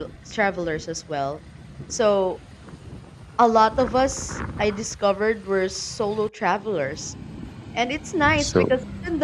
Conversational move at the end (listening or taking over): listening